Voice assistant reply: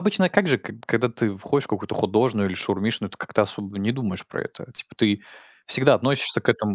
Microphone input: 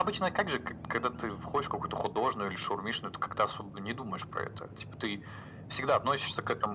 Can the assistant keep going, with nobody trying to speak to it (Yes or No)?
Yes